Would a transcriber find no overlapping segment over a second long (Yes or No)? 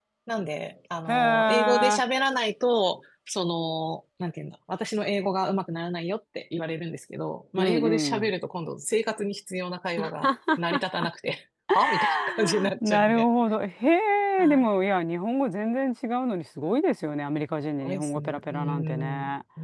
No